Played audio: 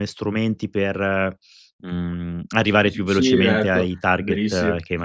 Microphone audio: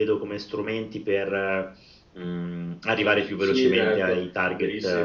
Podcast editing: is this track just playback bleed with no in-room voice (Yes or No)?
Yes